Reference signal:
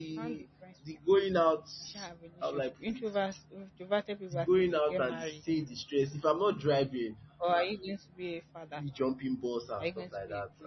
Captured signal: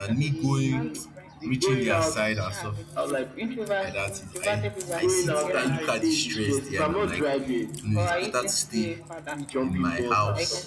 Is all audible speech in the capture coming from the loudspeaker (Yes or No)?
No